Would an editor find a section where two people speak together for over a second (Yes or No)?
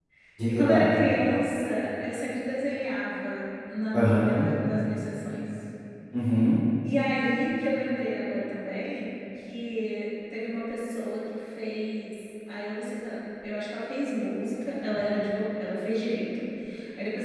No